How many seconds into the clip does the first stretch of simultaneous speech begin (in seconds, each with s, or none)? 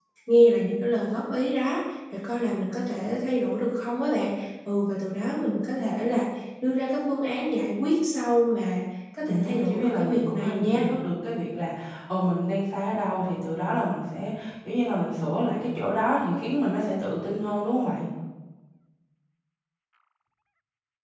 9.3 s